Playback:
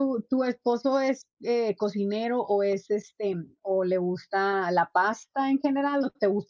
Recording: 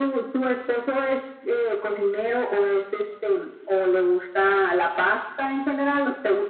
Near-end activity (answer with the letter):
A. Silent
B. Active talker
A